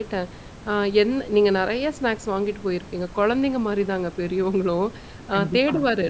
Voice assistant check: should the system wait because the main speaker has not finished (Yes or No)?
Yes